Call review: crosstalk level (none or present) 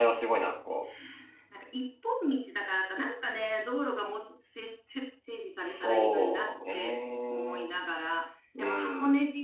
present